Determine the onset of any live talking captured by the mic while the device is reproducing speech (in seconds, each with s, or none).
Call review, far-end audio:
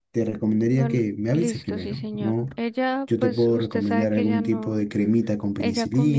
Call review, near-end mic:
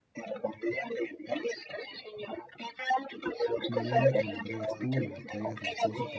3.6 s